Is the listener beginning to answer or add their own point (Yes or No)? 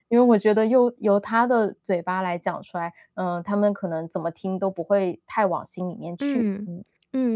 Yes